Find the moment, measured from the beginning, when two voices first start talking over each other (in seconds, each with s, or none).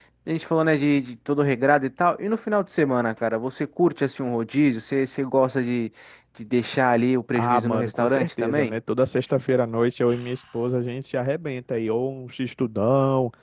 7.4 s